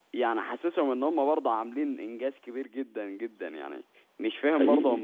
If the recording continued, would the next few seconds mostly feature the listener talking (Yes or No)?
No